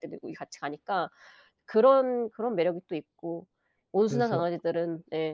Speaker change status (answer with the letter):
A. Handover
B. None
B